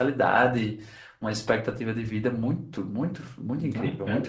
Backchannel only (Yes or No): No